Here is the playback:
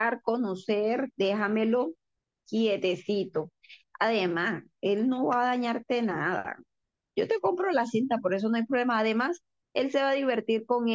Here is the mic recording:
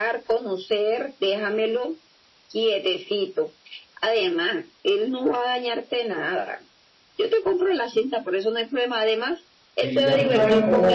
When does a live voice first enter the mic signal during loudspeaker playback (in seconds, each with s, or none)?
9.8 s